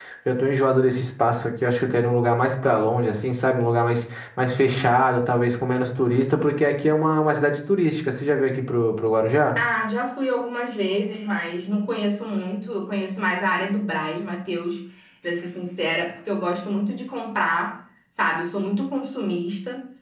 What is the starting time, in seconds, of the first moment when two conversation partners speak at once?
none

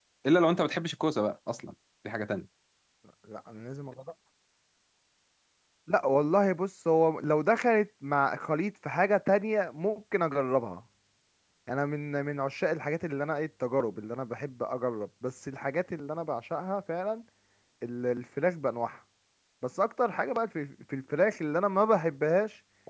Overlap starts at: none

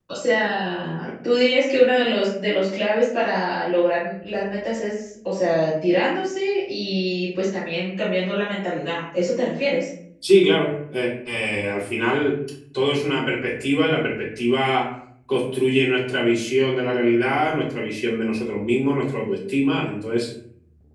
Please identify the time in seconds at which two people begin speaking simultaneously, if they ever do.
none

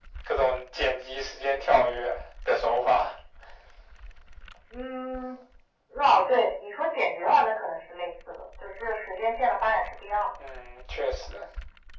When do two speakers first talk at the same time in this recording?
none

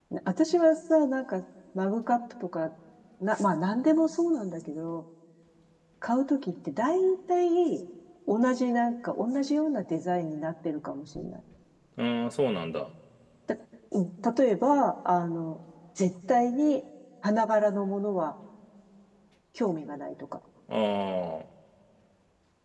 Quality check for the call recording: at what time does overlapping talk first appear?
none

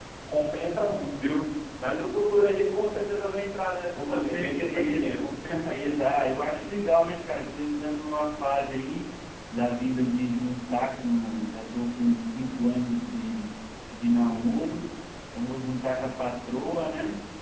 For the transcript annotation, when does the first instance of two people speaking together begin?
4.0 s

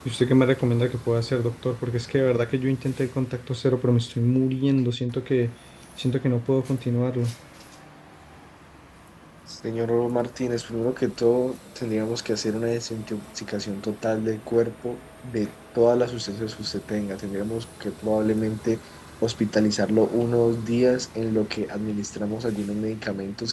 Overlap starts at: none

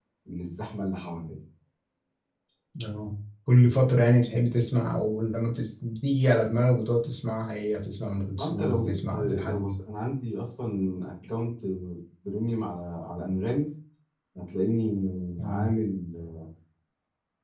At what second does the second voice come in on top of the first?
8.4 s

